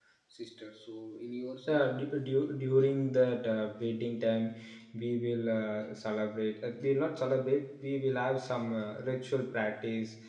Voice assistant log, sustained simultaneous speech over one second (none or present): none